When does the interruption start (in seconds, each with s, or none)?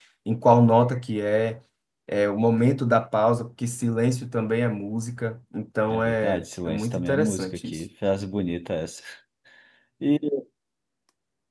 5.9 s